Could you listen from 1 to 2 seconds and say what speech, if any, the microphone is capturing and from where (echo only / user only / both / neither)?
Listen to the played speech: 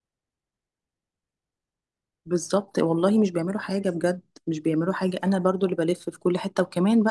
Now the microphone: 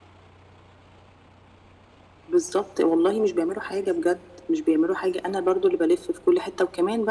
neither